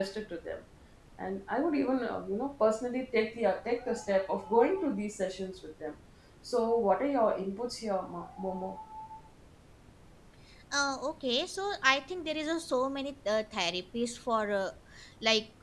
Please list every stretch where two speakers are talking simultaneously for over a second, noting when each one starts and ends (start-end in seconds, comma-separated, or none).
none